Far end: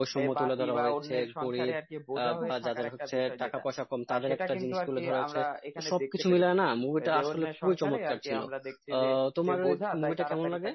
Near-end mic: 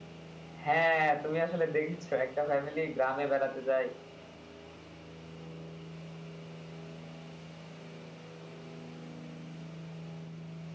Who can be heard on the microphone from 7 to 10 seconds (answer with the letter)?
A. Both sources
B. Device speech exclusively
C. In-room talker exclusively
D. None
D